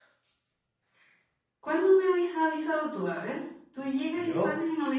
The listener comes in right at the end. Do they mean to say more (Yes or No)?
No